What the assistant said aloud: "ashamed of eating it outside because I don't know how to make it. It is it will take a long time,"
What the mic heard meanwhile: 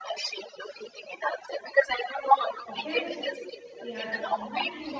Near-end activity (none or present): present